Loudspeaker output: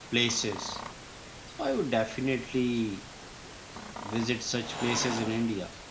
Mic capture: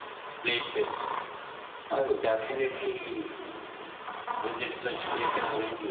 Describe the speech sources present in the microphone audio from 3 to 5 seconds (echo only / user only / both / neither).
echo only